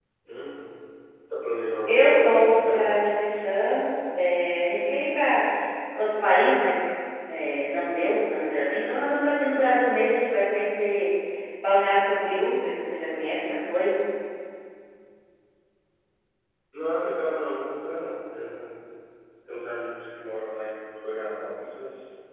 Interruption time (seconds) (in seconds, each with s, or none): 1.9 s